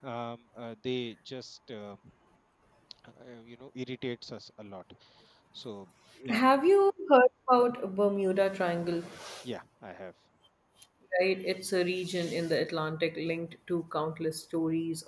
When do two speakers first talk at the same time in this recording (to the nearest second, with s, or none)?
none